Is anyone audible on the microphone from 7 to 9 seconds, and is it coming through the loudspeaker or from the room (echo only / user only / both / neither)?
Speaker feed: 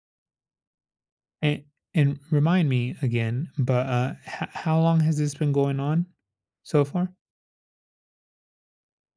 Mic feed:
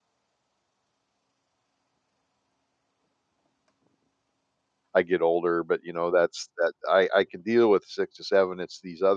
user only